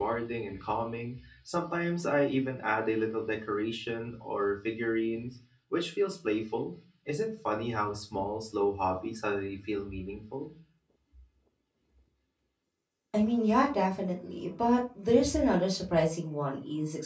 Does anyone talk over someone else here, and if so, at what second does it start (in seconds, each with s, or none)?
none